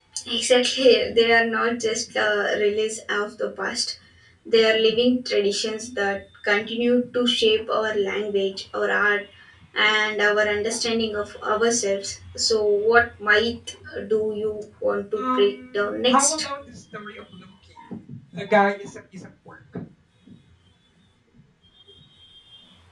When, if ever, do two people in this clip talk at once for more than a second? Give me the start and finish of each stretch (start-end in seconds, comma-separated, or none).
15.2-16.5